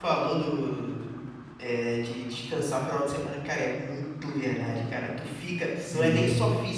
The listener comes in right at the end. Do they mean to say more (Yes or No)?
No